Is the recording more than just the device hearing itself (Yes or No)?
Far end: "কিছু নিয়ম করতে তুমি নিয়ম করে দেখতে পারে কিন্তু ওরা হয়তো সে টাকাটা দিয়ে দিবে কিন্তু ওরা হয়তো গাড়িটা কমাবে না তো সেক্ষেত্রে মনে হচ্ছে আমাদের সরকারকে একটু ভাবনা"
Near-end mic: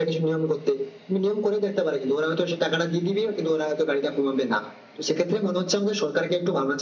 No